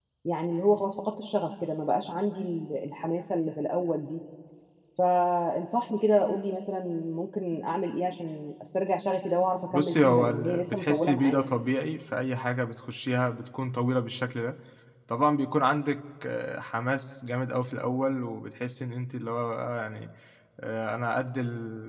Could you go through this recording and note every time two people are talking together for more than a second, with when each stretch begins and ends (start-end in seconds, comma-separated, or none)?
9.7-11.4